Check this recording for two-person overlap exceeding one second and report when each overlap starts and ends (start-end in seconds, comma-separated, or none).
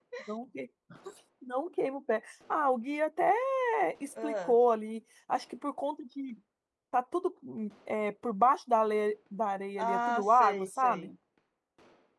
9.8-11.1